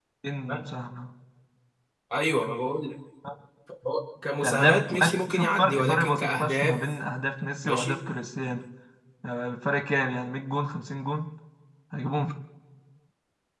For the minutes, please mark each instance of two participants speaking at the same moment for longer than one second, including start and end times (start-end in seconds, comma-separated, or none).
4.4-6.7